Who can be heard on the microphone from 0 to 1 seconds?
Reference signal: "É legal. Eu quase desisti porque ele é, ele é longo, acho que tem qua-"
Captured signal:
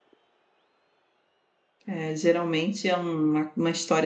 neither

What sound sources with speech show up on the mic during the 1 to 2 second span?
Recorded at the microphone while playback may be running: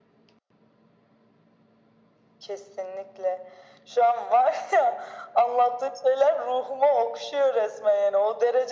neither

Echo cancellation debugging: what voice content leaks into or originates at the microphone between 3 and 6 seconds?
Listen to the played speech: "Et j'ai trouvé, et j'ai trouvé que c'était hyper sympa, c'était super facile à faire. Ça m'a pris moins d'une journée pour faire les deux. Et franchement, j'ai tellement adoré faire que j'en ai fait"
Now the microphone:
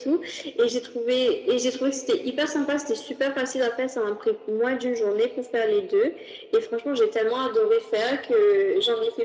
echo only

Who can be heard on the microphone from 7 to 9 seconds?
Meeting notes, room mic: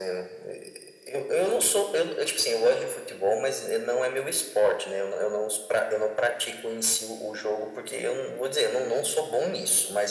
echo only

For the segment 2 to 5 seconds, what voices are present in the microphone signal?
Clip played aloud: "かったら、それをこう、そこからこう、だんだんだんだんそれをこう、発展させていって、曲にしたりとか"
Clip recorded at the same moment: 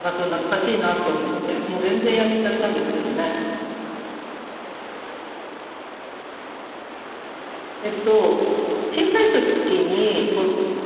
user only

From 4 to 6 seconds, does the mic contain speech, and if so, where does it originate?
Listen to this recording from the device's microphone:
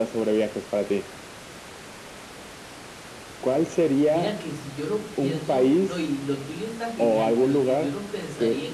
both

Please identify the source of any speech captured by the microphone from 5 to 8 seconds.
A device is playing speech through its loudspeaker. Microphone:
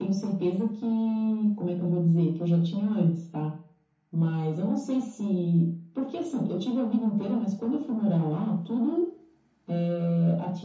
echo only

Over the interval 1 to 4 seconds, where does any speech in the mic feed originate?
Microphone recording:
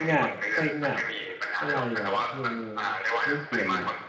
both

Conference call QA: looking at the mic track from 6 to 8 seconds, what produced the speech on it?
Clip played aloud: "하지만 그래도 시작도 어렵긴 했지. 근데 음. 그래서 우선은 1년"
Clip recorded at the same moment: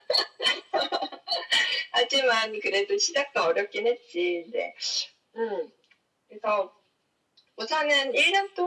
echo only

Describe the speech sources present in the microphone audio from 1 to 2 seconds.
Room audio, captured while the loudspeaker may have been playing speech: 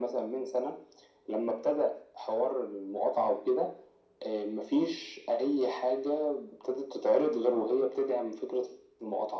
echo only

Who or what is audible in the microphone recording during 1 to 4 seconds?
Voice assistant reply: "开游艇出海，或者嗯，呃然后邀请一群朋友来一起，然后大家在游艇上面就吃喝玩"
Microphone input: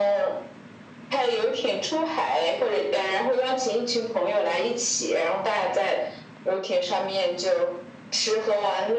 echo only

